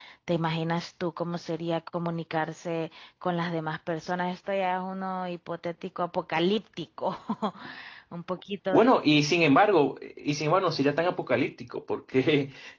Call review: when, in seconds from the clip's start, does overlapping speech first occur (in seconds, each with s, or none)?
none